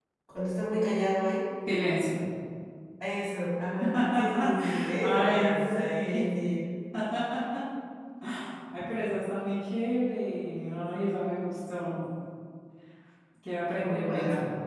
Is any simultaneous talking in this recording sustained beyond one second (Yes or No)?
Yes